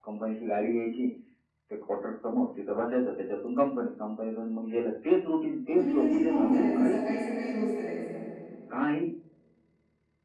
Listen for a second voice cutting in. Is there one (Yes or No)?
Yes